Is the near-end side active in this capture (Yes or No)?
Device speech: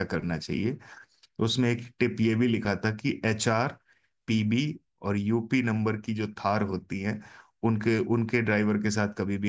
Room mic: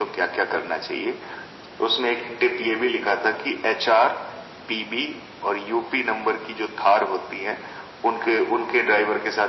No